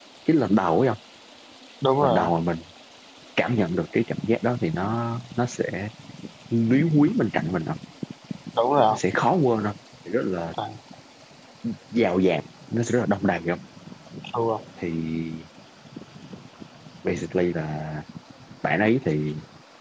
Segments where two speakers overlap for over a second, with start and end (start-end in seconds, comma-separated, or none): none